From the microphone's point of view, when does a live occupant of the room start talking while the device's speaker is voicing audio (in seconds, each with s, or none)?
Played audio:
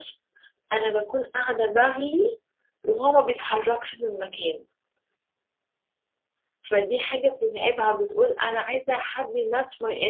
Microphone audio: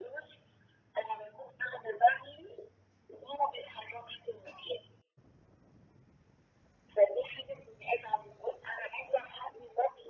none